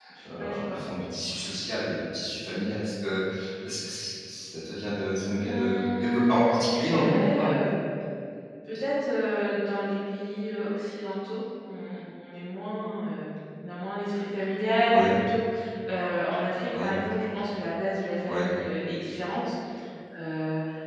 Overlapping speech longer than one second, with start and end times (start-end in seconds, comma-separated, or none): 5.4-7.5